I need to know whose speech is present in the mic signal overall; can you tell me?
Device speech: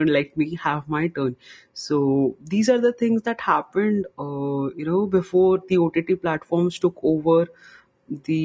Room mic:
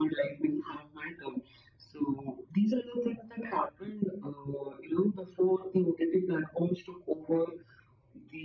echo only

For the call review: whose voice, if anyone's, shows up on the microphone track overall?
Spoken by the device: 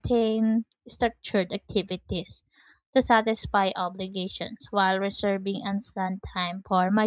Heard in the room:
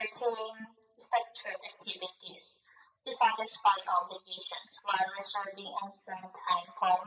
echo only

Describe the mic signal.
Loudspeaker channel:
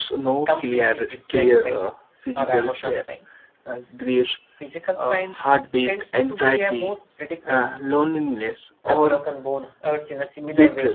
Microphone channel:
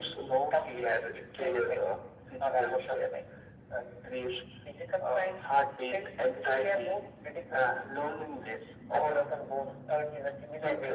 echo only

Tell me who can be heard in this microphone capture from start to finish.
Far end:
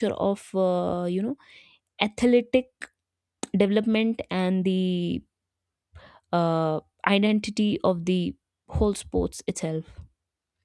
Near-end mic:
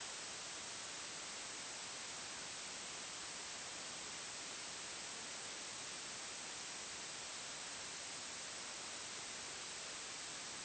neither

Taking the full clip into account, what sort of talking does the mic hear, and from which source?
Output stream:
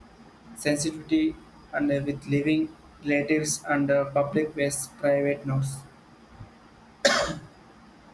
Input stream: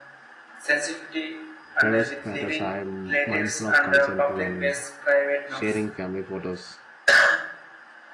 both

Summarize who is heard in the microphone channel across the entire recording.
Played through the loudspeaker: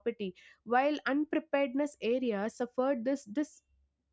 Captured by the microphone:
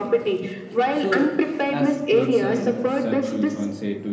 both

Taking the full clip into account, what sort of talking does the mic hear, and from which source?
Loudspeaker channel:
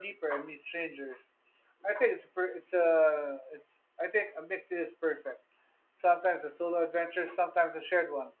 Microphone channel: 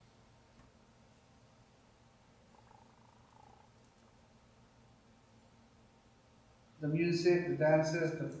user only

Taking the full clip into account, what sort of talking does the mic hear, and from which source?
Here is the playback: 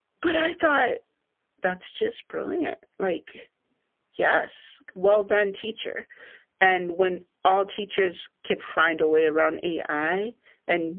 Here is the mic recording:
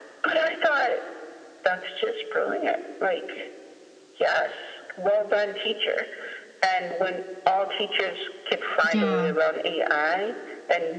both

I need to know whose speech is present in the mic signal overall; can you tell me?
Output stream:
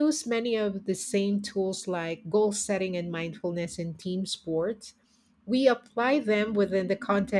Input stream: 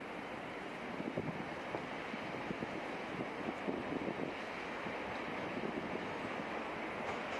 neither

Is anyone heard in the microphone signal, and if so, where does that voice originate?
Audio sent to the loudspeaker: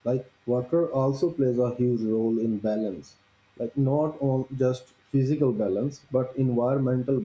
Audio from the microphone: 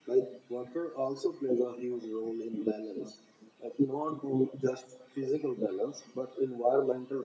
echo only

